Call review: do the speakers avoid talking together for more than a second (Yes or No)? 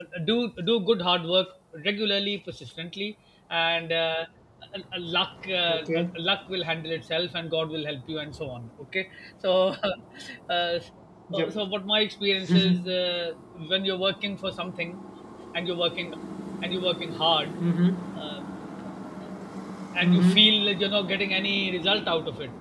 Yes